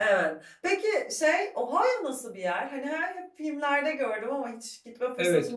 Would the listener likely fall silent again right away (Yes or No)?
No